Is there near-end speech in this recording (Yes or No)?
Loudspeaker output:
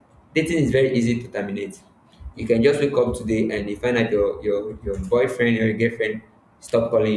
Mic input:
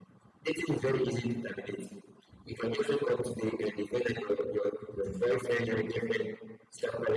No